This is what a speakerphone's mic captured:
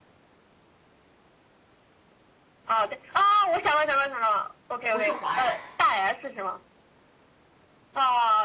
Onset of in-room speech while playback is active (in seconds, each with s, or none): 4.9 s